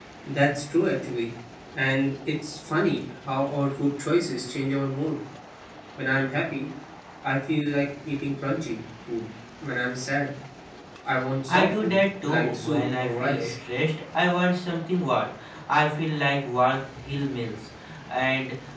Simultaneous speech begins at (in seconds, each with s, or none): 11.5 s